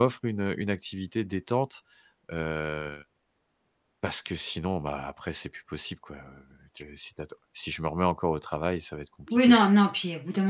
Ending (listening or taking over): taking over